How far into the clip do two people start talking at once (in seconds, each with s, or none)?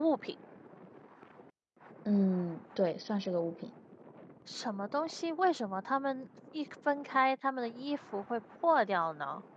none